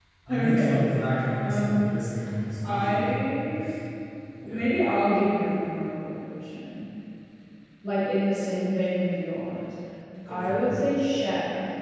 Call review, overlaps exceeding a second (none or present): none